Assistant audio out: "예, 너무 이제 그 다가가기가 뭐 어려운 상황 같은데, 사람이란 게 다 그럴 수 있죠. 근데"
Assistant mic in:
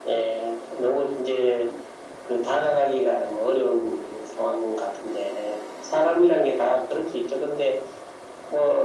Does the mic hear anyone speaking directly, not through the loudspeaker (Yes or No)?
No